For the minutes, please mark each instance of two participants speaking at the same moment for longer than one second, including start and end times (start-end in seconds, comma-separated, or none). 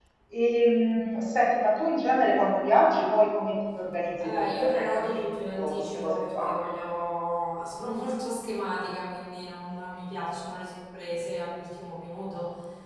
4.2-6.6